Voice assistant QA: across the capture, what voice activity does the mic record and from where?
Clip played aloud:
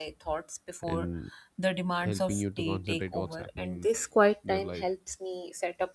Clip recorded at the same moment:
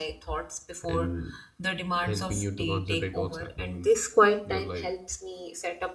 echo only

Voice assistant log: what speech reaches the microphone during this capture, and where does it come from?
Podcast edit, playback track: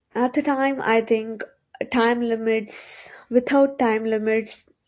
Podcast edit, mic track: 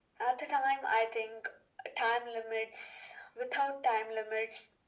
echo only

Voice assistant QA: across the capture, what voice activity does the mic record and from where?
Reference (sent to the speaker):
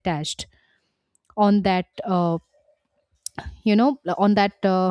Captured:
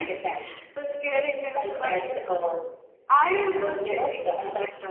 both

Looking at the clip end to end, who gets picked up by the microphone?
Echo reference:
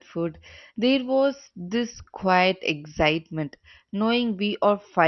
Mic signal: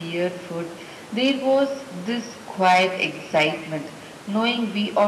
echo only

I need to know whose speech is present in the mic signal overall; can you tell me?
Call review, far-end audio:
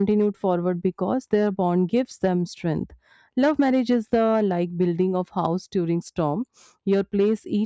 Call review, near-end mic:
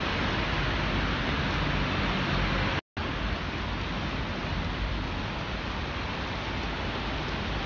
neither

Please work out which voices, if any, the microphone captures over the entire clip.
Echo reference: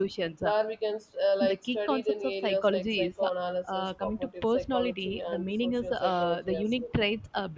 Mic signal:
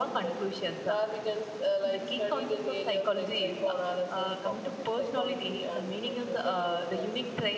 echo only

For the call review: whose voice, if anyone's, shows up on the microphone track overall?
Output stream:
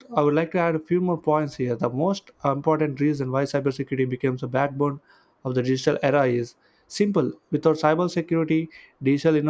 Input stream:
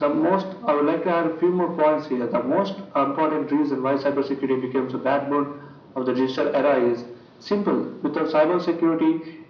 echo only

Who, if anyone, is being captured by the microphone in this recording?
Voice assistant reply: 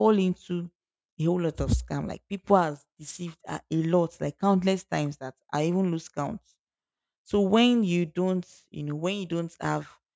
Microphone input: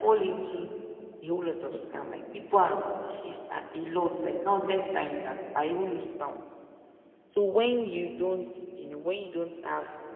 echo only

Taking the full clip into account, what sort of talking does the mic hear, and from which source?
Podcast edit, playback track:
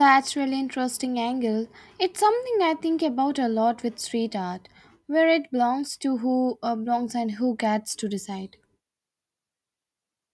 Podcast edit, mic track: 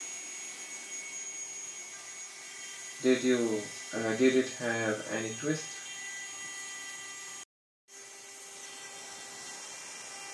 user only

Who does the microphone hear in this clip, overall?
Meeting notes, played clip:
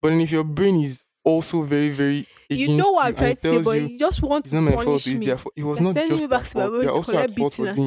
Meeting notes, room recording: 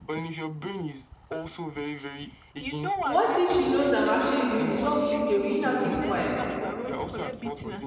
both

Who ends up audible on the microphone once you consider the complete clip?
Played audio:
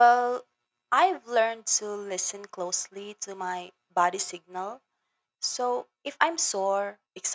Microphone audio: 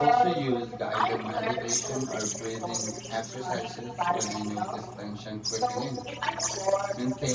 both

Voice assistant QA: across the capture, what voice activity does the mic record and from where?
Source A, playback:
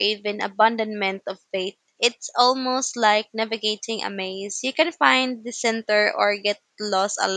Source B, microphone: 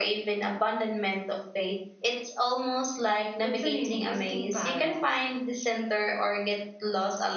both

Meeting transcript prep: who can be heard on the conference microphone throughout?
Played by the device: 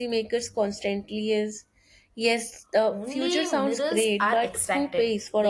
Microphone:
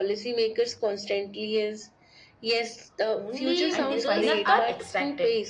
both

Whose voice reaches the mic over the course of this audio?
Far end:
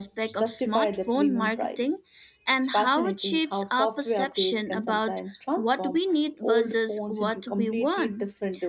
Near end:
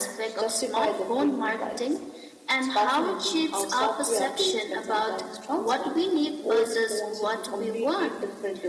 echo only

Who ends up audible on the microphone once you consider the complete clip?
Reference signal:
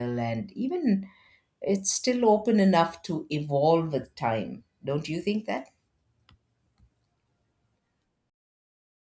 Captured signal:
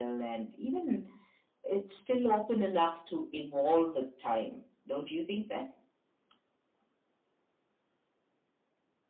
echo only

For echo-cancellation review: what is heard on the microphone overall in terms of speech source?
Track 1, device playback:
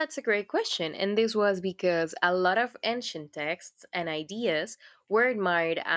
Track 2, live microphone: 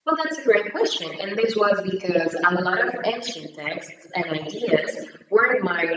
echo only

